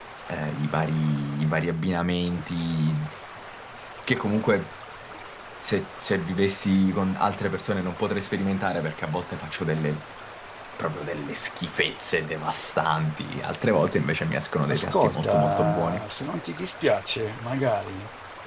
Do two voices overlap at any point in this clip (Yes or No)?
Yes